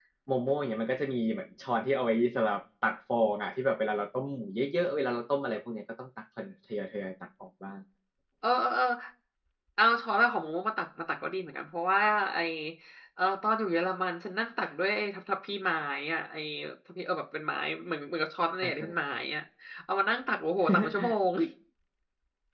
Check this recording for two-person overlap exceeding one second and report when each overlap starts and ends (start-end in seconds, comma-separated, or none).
none